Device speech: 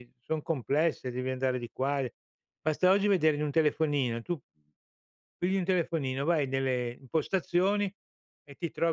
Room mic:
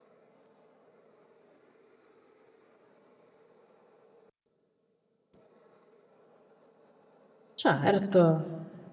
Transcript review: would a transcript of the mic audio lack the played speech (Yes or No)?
Yes